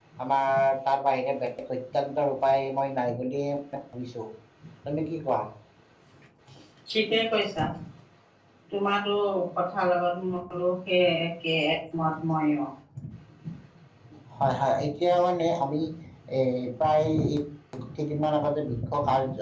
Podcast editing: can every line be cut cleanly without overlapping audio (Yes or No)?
Yes